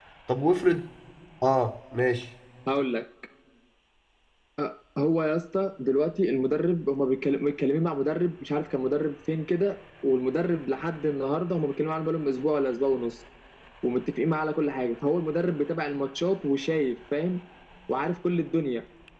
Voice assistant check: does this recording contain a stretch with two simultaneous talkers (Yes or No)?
No